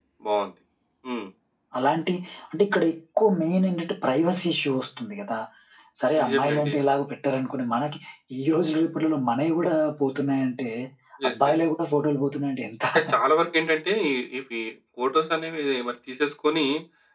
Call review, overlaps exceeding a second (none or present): none